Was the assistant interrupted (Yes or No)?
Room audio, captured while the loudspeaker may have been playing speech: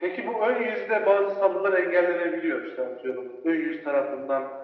No